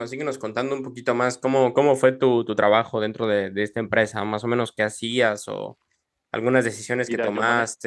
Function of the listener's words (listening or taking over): taking over